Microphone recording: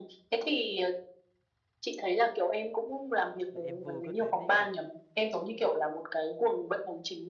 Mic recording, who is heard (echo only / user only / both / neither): both